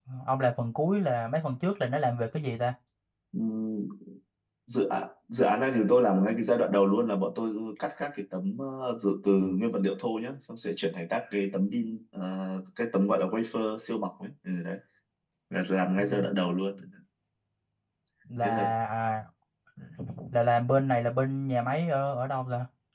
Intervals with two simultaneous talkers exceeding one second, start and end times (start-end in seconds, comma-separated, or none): none